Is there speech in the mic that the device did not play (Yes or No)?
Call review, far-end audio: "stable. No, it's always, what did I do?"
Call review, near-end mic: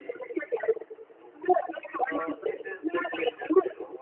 Yes